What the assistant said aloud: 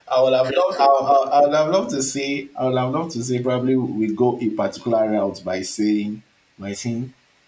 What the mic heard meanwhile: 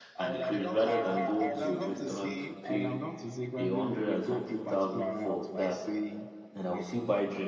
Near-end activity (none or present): present